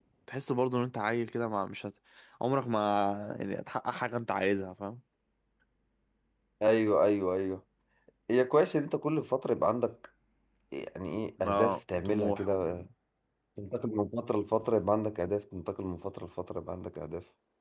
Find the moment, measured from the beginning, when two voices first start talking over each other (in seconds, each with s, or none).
11.4 s